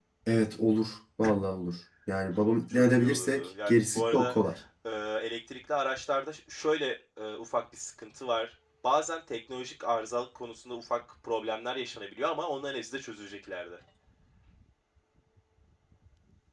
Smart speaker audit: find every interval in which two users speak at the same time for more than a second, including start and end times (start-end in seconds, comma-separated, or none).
2.7-4.4